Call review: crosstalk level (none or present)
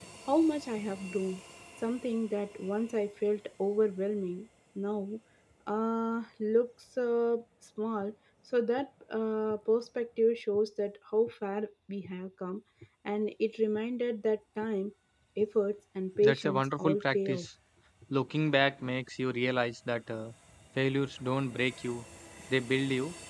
present